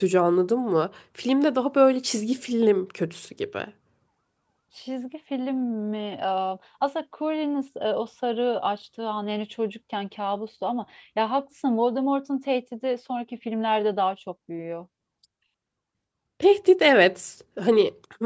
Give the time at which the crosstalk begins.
none

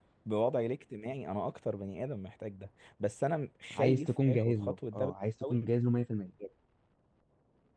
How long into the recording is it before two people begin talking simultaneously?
4 s

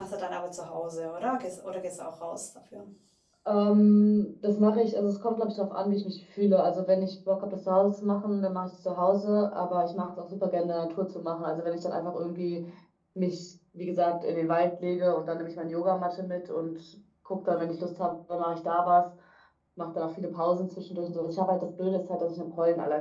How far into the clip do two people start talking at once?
none

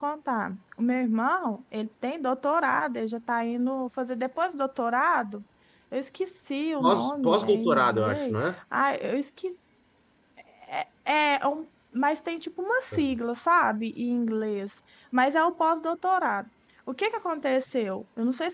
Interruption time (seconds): 7 s

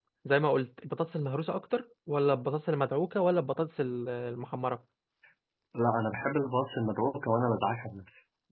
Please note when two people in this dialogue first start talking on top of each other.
none

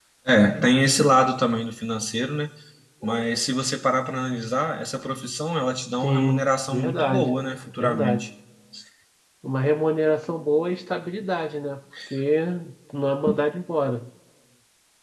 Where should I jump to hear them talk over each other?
6 s

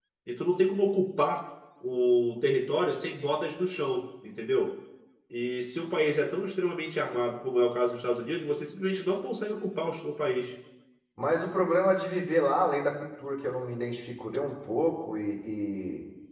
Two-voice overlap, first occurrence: none

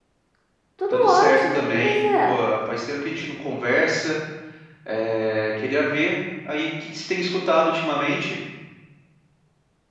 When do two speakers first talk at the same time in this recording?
1 s

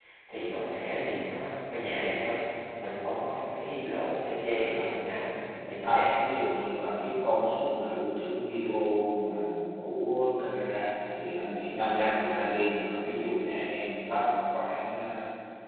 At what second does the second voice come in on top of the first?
5 s

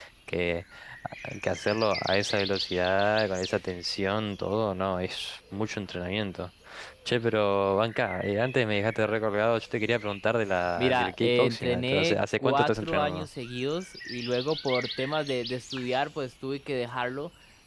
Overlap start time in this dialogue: 11 s

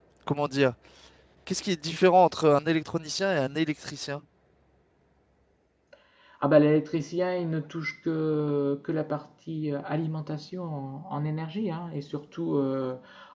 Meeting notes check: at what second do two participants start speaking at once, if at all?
none

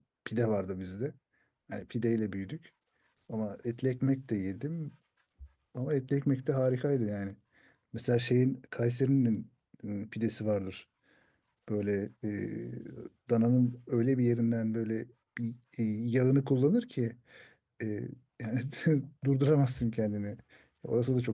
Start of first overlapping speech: none

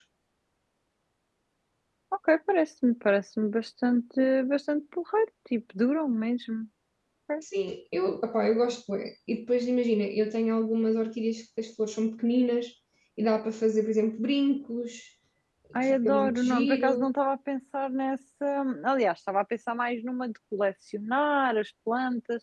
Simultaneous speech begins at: 16 s

